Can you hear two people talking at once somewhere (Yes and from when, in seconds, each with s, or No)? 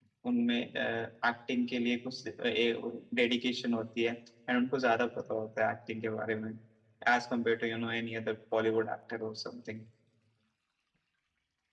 No